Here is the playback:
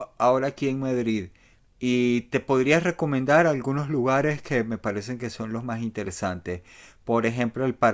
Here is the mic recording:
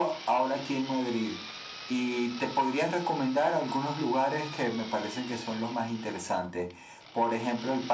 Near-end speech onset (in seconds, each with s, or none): none